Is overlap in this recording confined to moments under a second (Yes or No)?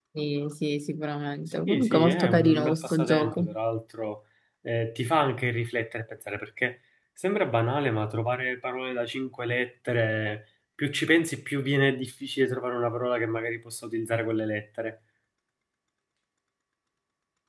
No